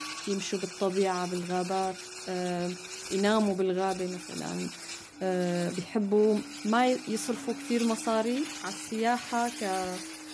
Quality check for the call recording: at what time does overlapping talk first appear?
none

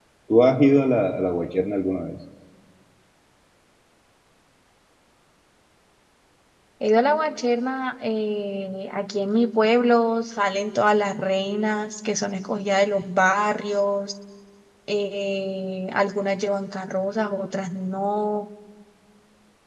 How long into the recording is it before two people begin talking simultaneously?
none

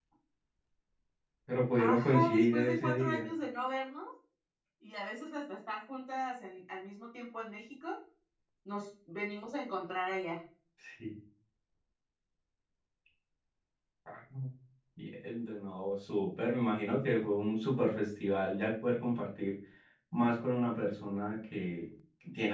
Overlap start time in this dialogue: 1.8 s

